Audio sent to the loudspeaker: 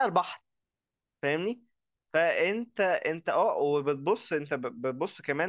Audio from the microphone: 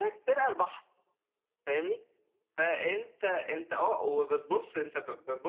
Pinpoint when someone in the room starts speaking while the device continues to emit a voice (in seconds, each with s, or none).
none